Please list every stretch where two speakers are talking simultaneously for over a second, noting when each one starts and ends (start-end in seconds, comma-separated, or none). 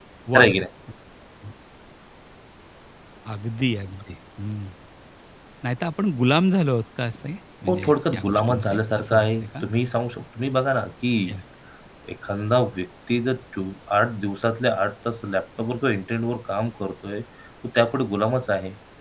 7.7-9.6